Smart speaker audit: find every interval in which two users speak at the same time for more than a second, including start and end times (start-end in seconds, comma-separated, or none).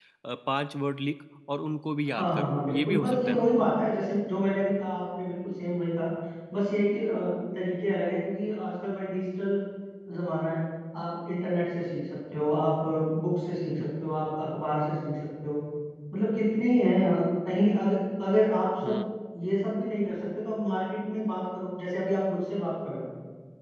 2.1-3.5